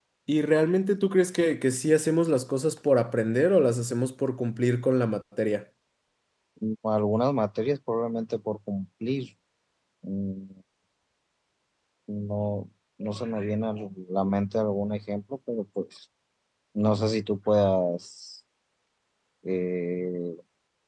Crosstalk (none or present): none